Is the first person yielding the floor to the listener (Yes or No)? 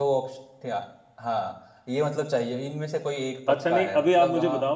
Yes